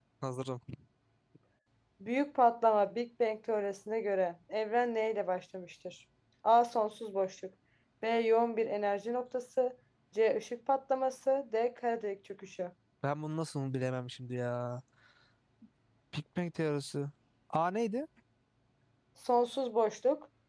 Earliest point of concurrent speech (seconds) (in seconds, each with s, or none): none